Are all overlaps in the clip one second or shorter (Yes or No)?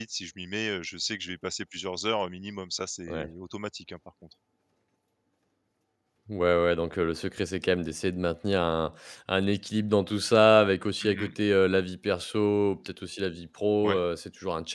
Yes